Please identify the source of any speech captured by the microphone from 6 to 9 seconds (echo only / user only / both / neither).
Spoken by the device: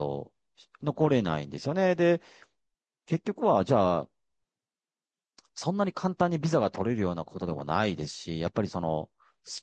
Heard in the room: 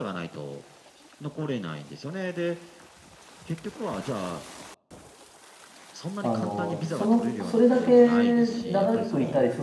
both